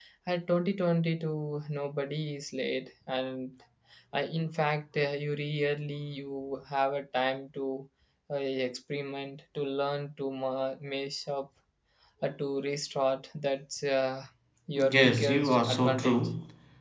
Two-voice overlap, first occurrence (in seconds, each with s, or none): 14.8 s